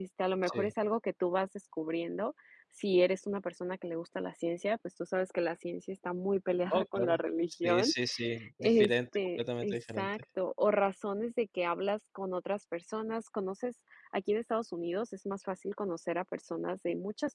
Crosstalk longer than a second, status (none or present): present